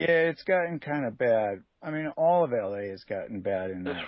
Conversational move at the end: taking over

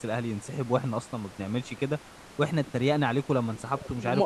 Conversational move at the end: taking over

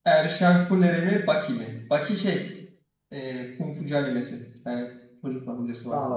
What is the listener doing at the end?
taking over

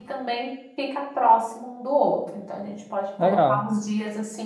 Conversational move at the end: listening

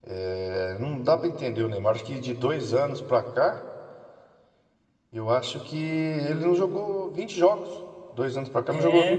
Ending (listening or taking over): listening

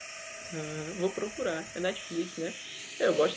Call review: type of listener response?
listening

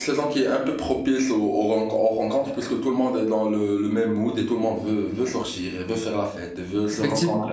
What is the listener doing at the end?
listening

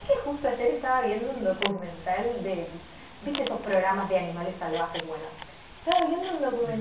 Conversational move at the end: listening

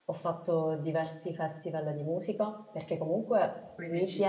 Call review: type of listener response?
listening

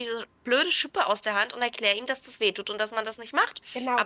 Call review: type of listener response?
taking over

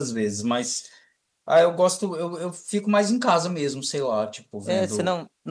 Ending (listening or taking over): taking over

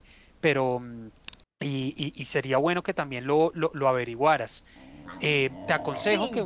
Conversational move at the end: listening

